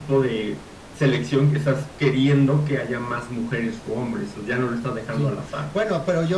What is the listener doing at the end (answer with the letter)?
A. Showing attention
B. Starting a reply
B